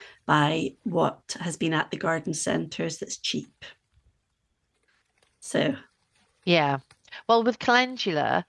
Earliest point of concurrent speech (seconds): none

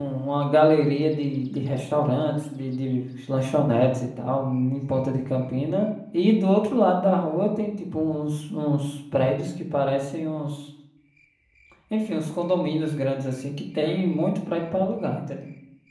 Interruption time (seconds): none

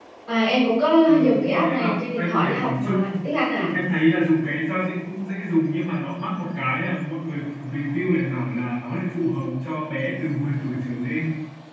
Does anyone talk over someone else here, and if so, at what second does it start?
1.1 s

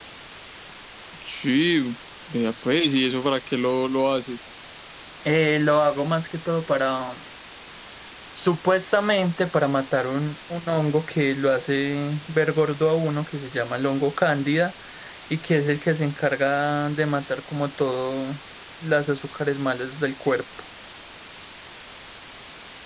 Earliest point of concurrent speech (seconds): none

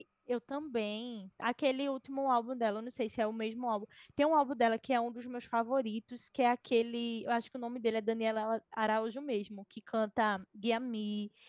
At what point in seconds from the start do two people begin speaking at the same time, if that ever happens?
none

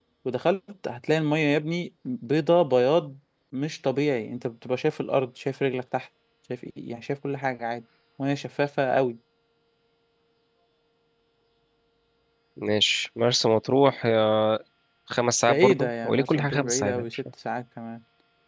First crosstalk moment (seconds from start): 15.5 s

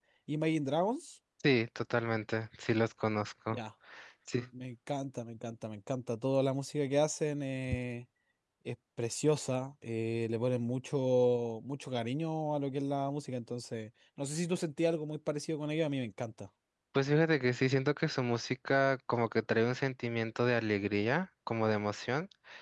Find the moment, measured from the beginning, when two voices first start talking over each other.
none

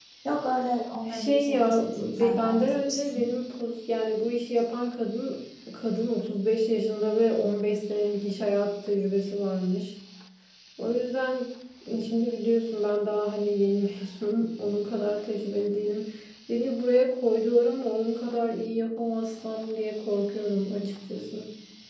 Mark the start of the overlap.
1.1 s

